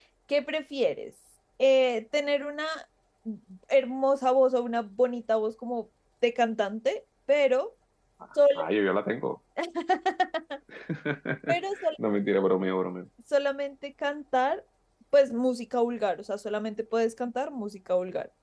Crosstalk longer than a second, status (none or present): none